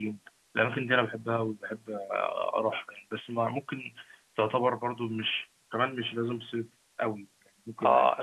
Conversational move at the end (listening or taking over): taking over